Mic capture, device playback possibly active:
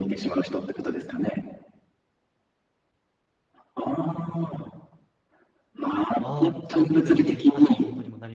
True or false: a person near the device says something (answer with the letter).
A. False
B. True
B